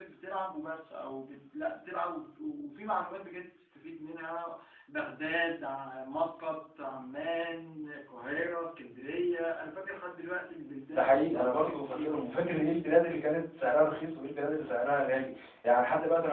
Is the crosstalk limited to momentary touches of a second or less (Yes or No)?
No